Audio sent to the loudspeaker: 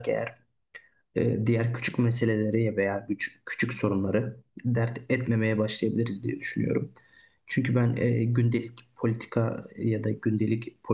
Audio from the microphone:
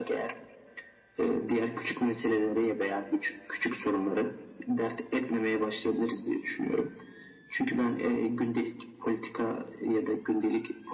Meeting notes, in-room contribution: none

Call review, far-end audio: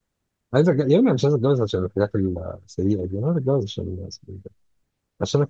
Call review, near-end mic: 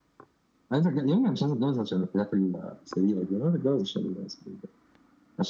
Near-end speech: none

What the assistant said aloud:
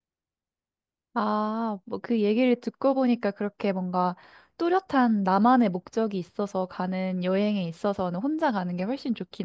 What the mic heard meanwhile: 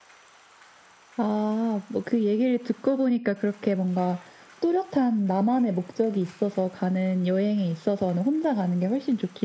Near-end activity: none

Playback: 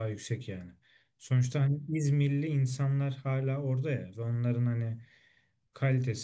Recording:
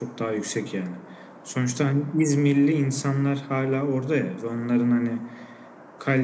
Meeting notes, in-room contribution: none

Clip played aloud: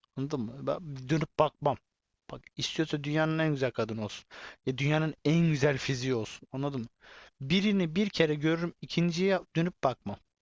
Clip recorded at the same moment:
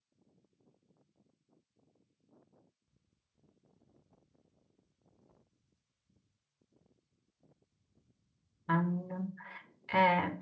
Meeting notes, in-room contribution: present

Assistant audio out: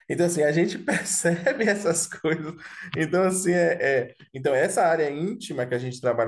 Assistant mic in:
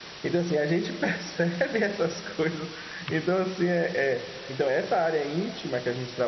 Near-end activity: none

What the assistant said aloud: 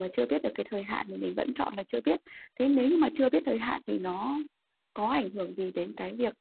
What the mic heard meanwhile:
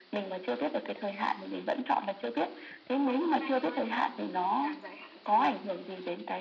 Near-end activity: present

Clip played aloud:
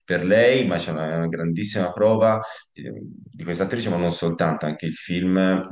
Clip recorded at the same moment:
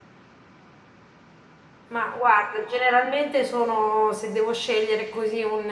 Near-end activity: present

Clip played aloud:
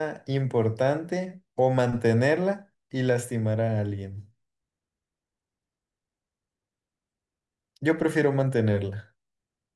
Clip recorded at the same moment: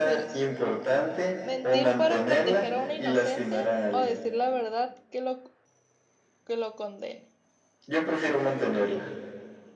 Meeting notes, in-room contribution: present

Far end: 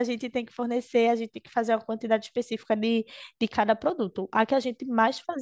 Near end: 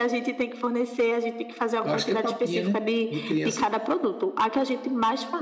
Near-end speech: present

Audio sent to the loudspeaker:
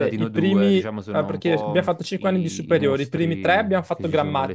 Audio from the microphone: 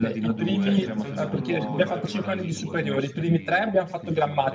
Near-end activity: present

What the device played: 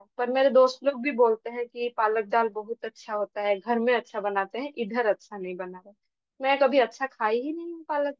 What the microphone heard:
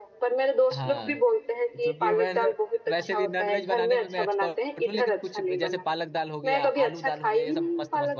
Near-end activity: present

